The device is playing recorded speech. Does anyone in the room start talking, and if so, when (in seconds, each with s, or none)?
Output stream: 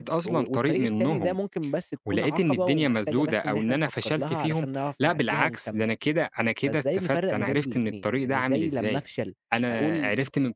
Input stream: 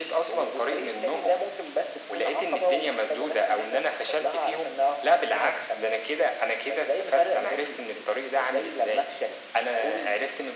none